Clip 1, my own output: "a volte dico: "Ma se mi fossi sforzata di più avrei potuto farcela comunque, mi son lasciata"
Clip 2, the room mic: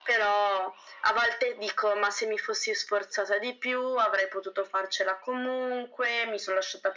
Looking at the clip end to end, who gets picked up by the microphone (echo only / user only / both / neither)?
echo only